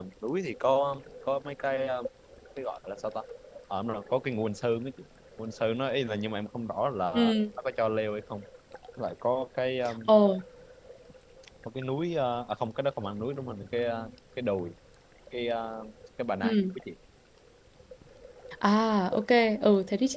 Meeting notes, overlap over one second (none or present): none